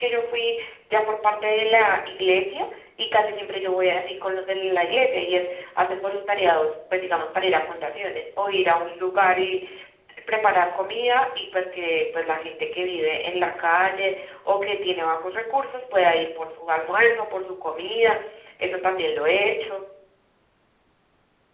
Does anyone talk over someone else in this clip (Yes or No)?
No